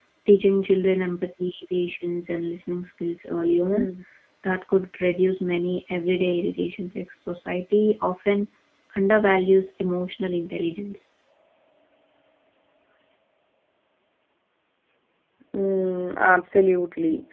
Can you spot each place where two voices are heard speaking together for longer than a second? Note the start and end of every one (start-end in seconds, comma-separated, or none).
none